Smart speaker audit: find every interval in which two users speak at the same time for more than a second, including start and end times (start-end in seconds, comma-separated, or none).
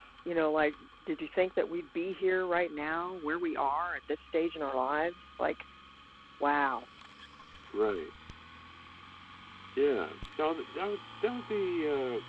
none